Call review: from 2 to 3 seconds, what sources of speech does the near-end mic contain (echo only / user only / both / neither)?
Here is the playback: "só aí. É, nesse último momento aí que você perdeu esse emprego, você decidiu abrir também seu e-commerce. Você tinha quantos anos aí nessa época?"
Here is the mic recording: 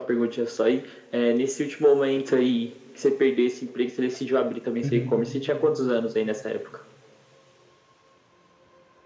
echo only